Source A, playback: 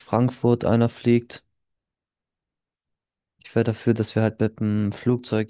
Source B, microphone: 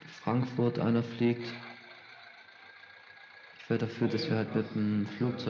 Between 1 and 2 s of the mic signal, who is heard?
echo only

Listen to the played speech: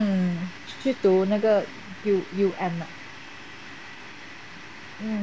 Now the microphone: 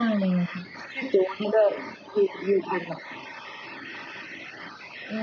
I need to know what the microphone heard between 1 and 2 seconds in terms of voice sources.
echo only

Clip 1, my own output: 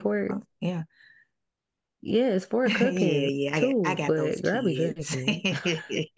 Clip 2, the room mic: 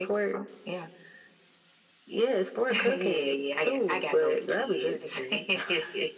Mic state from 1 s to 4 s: echo only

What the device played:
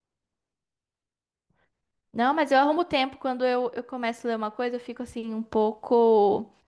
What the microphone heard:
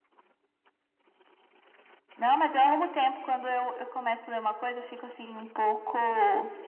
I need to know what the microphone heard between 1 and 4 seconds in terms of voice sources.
echo only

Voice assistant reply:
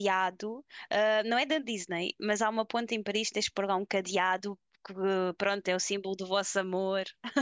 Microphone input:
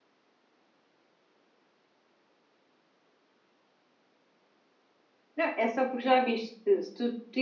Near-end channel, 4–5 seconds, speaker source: neither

